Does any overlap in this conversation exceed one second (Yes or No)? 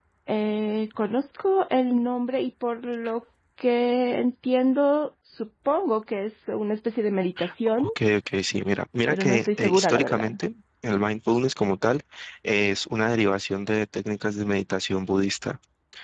Yes